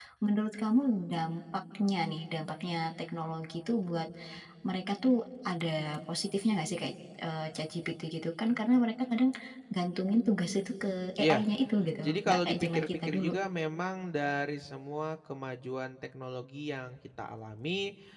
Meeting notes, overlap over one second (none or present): present